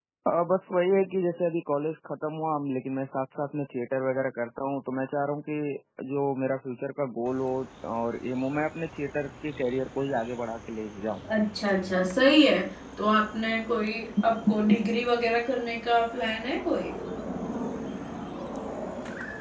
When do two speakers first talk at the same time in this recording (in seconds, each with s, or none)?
none